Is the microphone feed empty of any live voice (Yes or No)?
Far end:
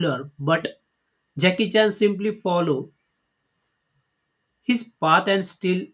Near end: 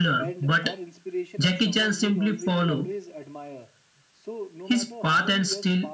No